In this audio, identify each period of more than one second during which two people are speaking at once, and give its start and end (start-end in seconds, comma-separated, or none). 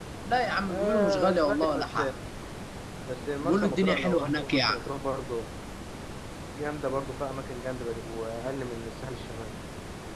0.7-2.0, 3.4-4.8